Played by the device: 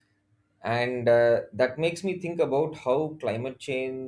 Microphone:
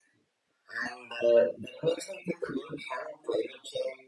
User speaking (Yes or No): No